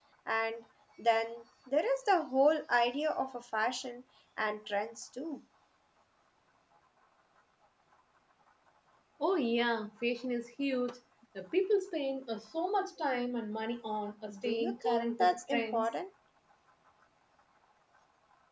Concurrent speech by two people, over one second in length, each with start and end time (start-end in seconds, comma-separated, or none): 14.4-15.9